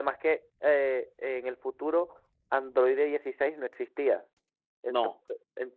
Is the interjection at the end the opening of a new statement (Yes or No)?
No